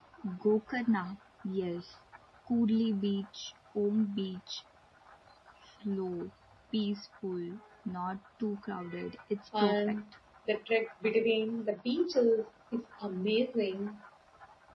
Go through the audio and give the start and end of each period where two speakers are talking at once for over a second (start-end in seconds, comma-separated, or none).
none